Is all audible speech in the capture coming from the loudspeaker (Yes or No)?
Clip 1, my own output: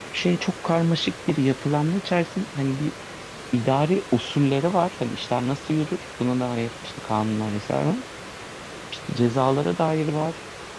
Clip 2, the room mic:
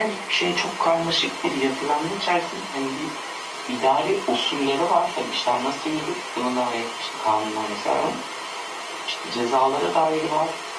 Yes